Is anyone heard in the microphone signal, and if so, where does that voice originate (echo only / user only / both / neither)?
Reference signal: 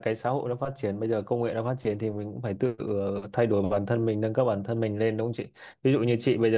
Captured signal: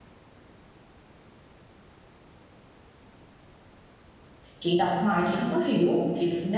user only